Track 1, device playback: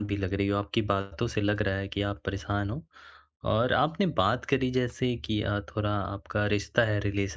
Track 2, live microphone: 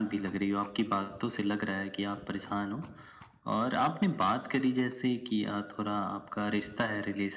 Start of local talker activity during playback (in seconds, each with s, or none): none